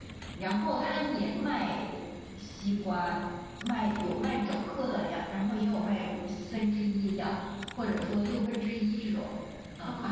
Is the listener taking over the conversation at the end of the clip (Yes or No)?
Yes